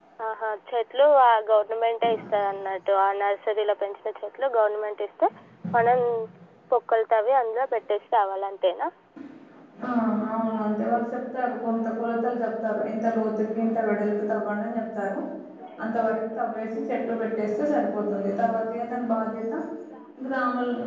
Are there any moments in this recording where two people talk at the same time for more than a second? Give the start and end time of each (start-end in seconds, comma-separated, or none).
none